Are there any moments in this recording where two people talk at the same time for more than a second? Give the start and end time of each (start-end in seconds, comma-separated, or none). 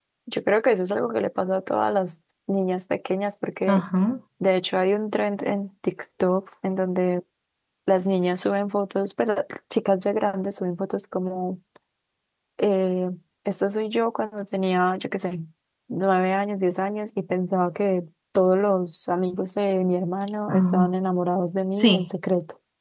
none